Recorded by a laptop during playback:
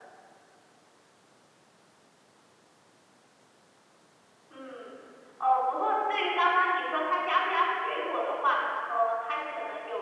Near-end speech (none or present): none